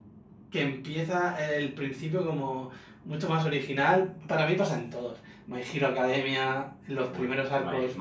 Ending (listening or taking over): taking over